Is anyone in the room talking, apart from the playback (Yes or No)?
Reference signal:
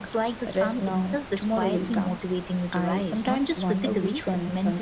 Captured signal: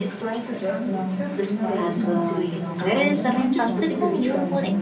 Yes